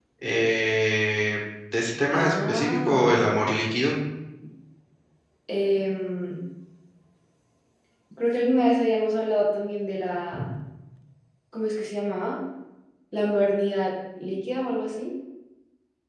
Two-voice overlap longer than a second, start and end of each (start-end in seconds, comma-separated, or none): 2.1-3.3